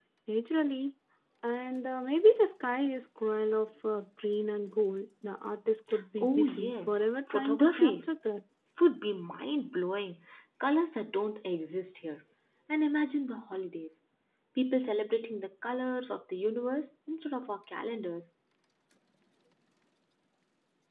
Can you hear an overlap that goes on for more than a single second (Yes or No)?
Yes